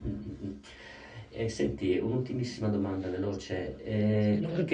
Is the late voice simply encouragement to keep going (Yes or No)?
Yes